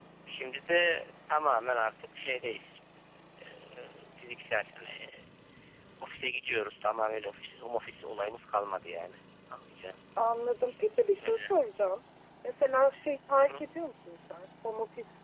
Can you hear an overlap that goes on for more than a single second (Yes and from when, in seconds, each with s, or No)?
No